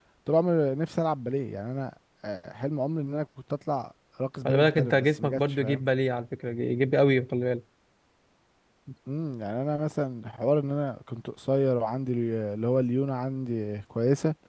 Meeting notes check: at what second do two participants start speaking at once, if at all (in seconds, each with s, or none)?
4.5 s